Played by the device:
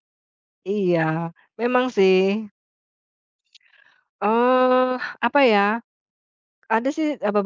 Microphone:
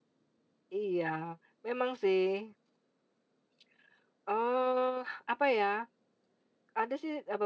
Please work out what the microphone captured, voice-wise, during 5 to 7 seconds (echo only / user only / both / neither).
echo only